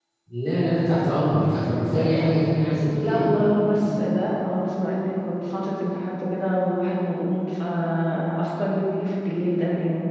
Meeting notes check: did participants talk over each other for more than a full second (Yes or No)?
No